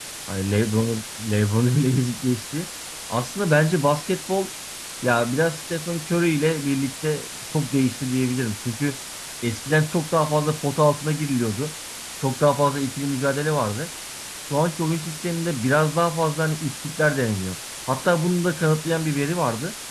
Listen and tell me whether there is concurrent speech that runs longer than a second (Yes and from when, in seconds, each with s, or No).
No